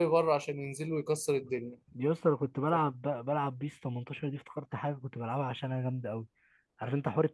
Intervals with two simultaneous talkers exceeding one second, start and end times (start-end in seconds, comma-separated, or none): none